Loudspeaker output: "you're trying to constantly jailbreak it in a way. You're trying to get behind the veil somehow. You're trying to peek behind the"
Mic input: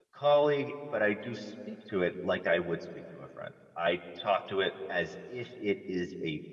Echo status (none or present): none